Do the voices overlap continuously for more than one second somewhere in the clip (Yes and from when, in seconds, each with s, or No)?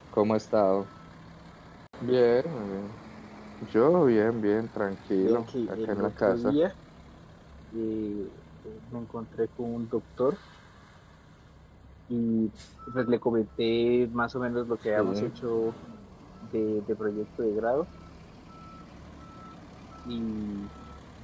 Yes, from 5.2 s